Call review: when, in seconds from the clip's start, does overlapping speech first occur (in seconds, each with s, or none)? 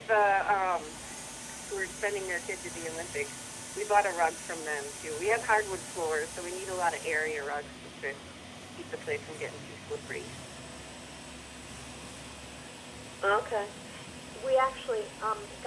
none